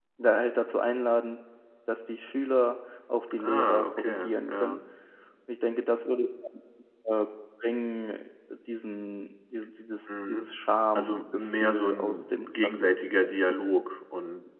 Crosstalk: present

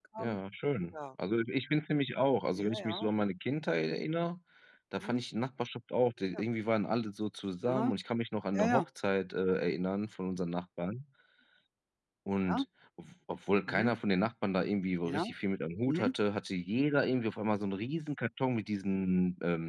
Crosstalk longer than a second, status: none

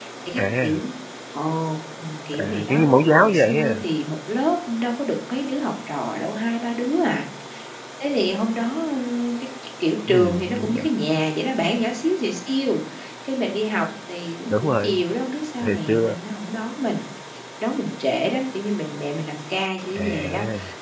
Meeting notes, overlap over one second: present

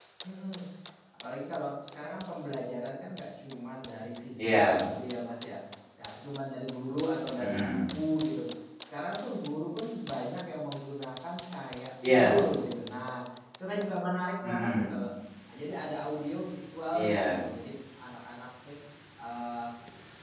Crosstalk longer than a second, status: none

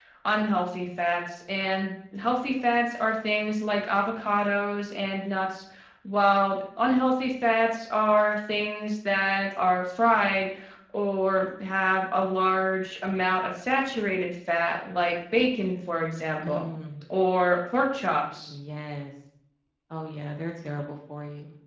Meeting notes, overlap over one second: none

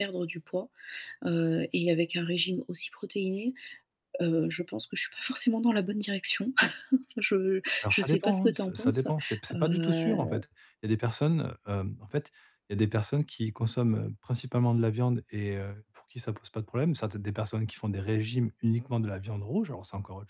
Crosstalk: present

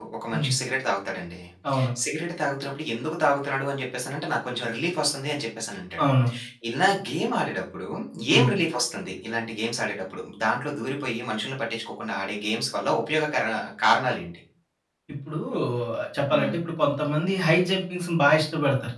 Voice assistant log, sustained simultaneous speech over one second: none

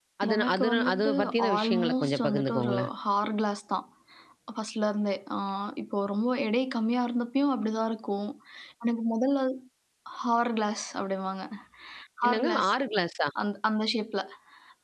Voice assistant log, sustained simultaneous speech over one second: present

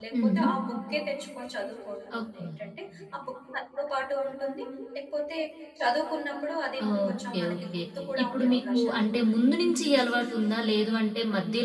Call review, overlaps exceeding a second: present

